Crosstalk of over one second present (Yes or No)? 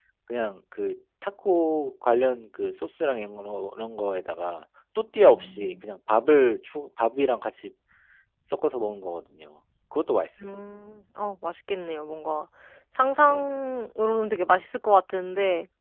No